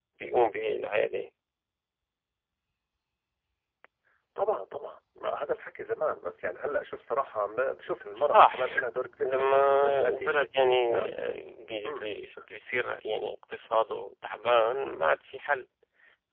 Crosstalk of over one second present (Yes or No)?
Yes